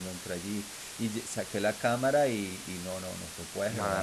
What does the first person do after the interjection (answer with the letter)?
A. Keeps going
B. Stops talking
B